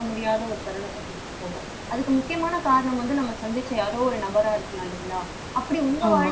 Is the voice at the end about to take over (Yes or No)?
No